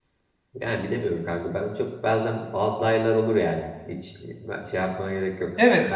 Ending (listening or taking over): taking over